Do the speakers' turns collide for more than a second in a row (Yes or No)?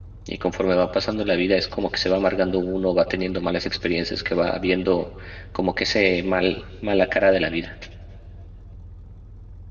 No